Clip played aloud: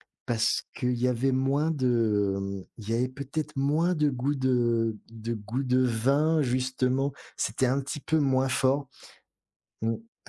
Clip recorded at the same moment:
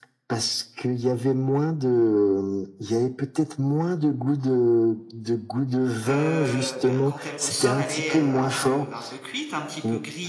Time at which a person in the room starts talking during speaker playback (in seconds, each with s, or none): 6.0 s